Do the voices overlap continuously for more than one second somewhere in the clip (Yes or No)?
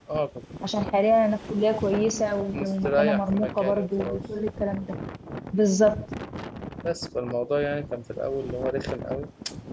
Yes